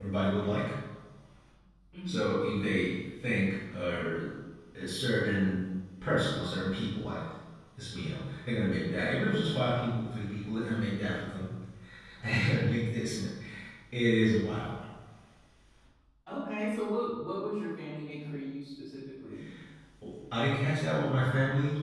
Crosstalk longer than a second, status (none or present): none